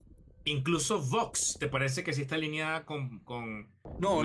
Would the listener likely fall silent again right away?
No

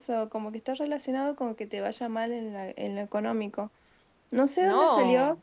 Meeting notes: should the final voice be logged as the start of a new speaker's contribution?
No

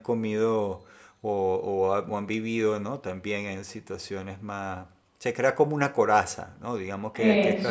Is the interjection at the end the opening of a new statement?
No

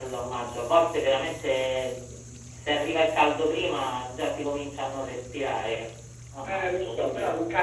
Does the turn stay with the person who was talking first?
No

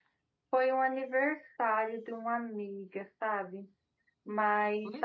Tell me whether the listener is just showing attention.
No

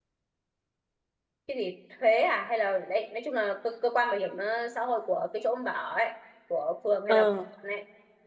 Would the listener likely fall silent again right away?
Yes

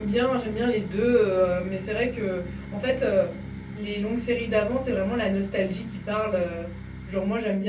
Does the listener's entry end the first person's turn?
No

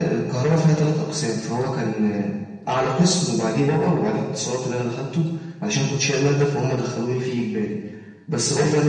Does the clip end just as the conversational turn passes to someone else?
No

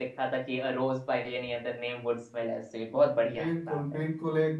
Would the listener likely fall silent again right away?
No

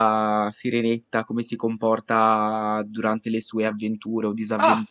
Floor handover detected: No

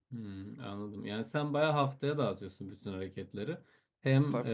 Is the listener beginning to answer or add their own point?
No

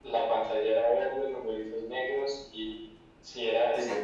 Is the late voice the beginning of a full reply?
No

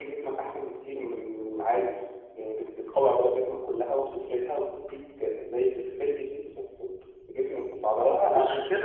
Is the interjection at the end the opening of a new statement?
Yes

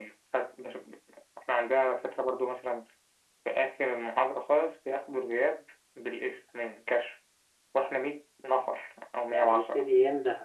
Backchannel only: No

